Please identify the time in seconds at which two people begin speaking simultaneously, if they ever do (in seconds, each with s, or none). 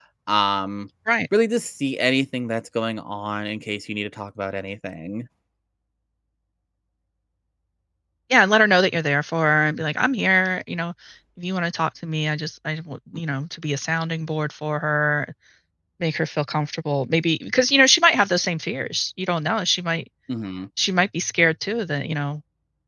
none